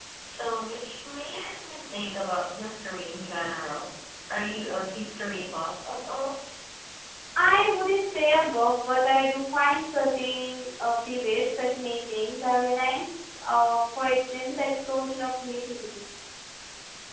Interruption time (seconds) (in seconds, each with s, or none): none